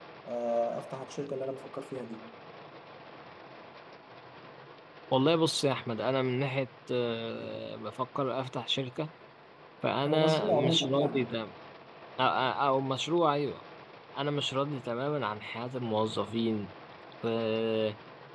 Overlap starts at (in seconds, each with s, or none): 10.1 s